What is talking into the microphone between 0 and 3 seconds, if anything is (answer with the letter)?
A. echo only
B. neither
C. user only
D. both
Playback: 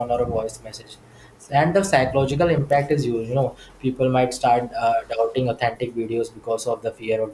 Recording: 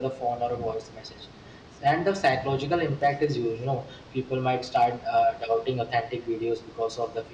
A